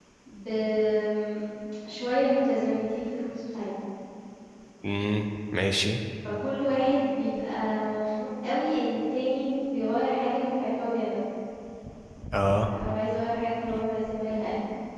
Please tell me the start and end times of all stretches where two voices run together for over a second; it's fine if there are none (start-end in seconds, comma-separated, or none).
none